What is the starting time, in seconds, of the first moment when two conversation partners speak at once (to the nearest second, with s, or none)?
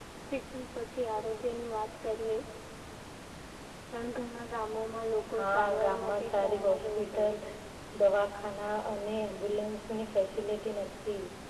5 s